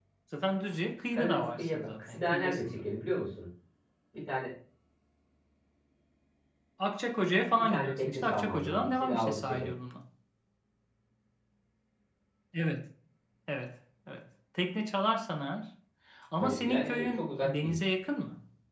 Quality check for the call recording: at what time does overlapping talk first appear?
1.1 s

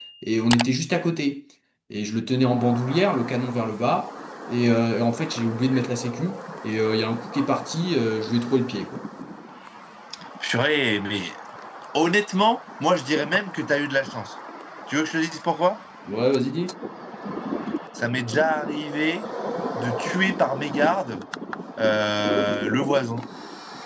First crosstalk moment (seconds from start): none

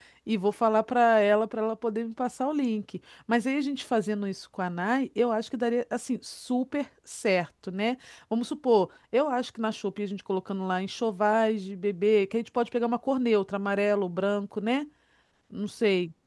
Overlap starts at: none

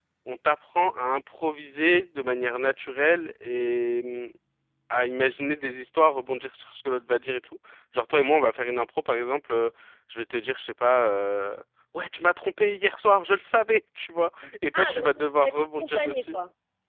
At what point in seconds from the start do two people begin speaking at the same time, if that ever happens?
14.7 s

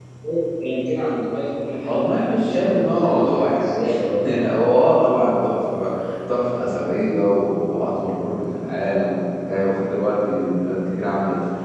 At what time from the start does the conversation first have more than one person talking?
1.8 s

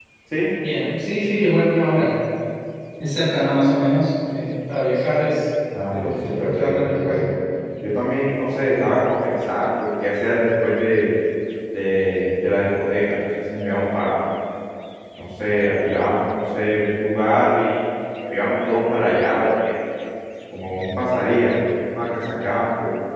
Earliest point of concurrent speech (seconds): 5.7 s

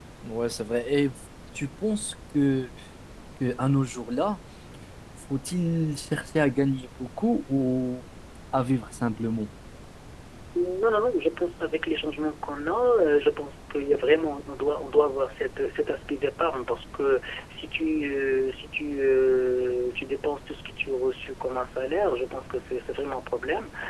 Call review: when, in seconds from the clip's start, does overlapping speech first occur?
none

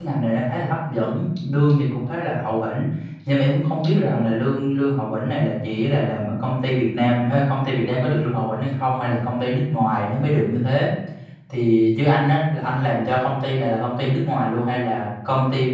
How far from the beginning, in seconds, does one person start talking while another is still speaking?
none

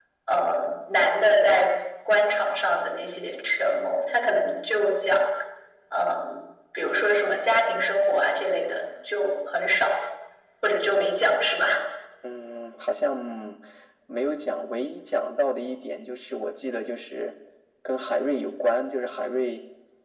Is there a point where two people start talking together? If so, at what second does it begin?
none

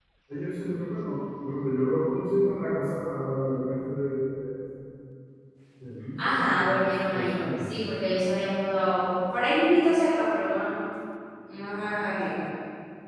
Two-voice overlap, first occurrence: 6.2 s

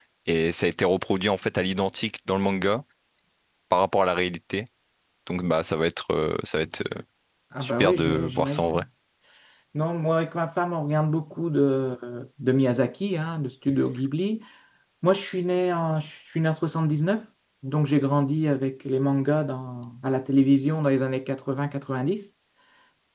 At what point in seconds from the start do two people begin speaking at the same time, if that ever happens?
7.6 s

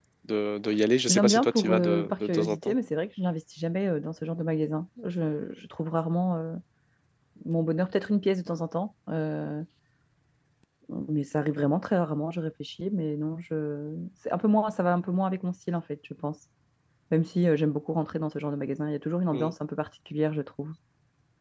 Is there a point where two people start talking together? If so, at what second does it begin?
1.1 s

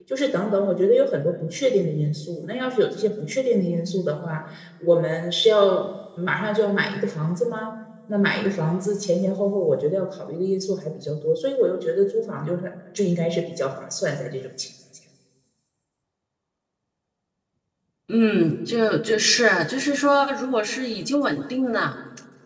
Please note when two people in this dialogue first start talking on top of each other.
none

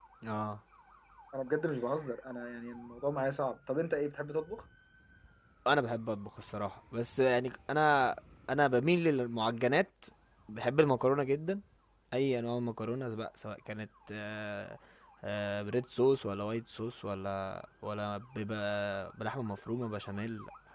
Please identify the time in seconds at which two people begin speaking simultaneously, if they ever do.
none

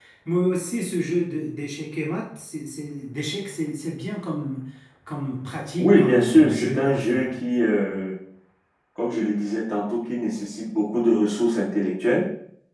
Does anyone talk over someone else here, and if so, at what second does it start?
5.8 s

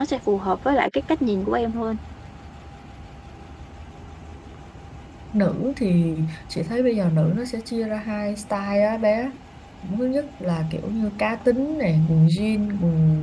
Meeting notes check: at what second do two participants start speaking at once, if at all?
none

